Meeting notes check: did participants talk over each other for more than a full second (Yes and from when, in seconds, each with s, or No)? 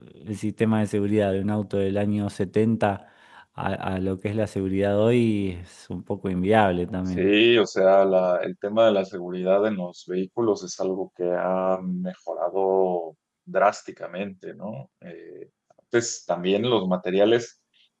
No